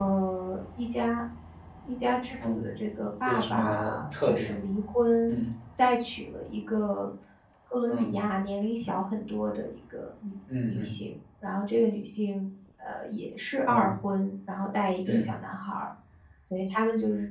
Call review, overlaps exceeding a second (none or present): present